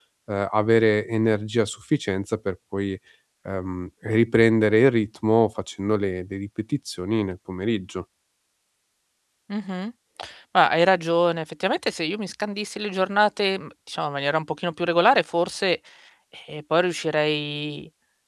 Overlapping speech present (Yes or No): No